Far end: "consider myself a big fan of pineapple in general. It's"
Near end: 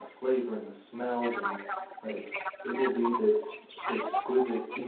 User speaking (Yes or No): Yes